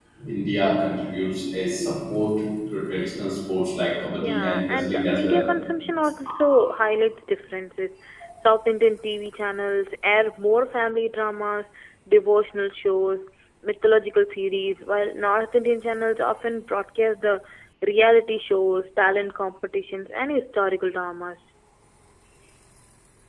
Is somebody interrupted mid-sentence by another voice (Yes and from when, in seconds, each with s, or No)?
Yes, from 4.2 s